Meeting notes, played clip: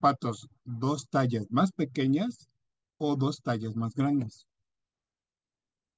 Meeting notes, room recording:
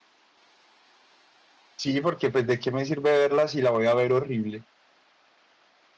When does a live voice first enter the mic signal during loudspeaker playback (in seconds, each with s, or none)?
1.8 s